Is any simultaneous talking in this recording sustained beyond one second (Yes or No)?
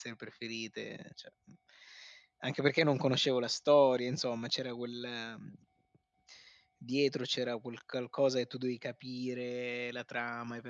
No